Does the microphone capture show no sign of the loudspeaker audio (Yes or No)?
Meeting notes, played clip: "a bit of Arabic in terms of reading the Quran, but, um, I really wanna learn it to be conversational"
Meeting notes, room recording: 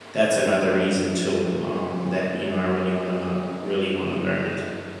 Yes